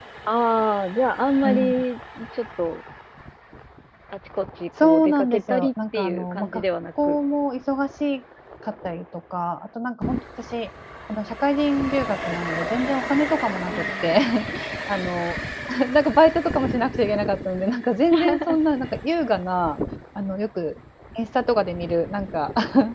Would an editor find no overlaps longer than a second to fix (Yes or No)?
No